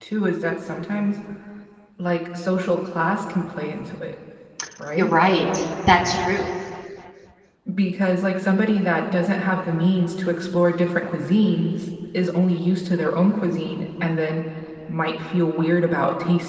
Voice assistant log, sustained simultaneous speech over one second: none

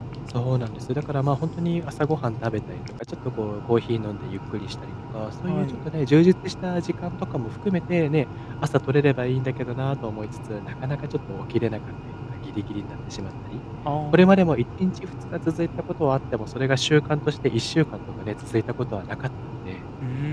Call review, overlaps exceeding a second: none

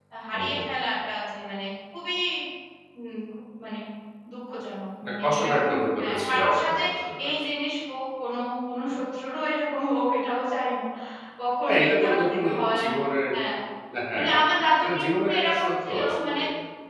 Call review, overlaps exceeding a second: present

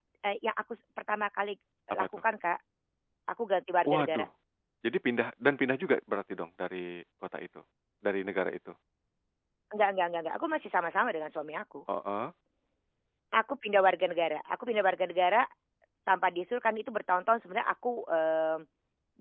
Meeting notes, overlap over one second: none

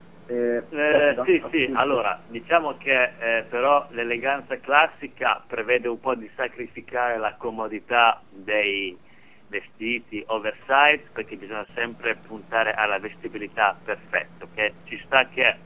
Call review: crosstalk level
present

